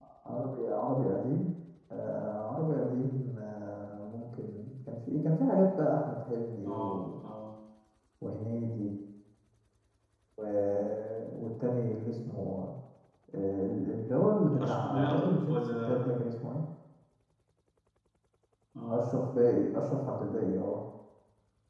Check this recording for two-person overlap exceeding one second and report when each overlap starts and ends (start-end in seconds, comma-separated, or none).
14.6-16.0